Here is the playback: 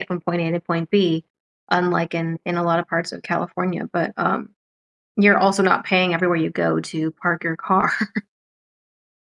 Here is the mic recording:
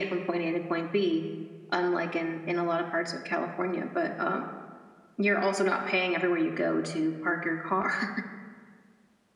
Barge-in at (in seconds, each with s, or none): none